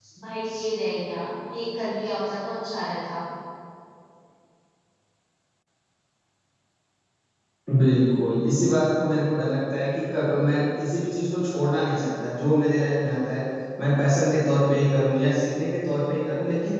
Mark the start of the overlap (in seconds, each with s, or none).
none